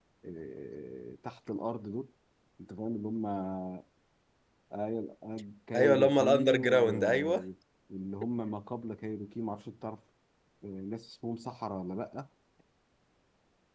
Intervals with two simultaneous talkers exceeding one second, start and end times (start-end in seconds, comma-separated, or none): 5.8-7.4